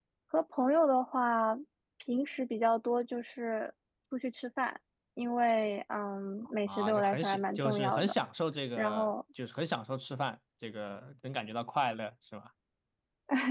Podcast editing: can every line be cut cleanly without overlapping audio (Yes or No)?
No